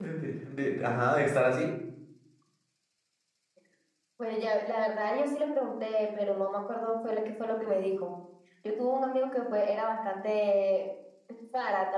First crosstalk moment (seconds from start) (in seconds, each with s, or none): none